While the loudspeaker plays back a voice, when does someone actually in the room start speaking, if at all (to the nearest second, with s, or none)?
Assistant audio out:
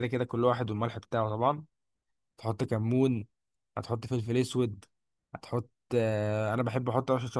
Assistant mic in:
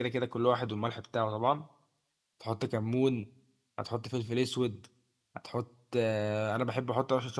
none